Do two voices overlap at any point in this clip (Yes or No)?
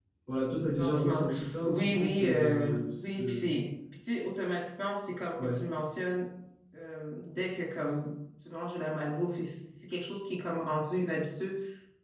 Yes